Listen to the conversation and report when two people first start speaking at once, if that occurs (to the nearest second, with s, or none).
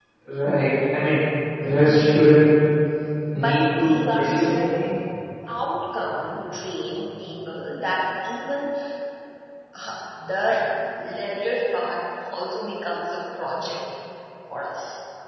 3 s